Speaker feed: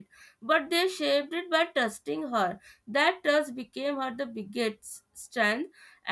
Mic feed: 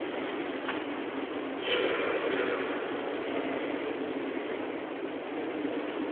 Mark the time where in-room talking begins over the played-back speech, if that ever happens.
none

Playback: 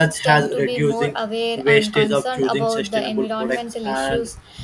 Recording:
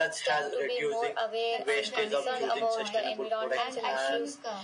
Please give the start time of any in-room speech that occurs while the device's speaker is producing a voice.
1 s

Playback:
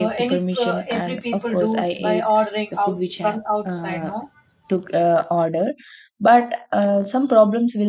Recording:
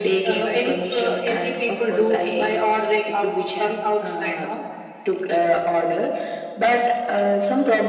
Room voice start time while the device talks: none

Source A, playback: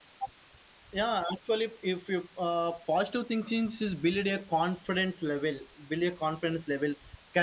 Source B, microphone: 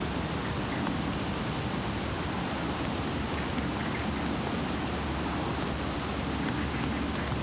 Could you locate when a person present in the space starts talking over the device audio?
none

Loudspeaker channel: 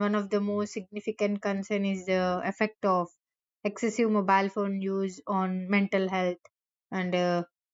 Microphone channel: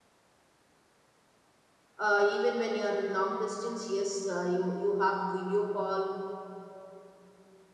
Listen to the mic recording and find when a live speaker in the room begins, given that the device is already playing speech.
2 s

